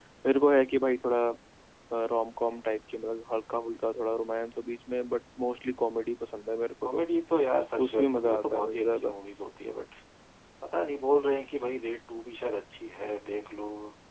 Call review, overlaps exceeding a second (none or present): present